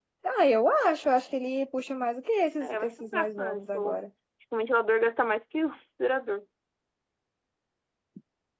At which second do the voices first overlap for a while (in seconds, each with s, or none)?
2.6 s